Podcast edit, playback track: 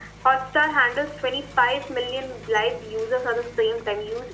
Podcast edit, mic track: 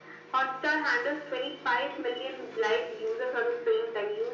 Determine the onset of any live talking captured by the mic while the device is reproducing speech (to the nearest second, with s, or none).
none